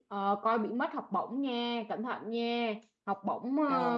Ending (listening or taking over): listening